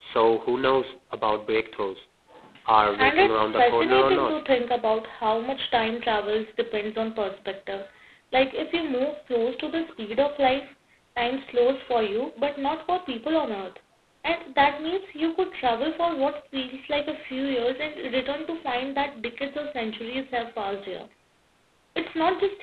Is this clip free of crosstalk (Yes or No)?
No